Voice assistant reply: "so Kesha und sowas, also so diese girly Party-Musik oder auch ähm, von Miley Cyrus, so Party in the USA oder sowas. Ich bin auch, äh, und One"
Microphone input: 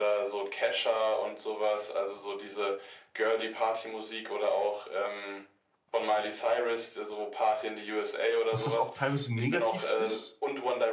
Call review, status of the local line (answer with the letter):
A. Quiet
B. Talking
B